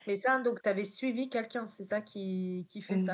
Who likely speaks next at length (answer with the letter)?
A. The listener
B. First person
A